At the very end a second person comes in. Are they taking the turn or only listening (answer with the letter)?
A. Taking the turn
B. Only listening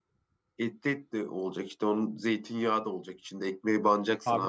A